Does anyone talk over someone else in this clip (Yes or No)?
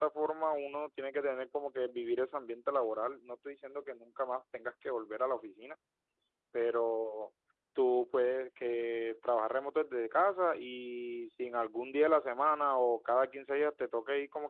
No